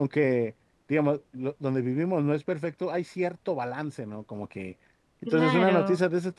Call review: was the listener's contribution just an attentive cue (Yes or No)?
Yes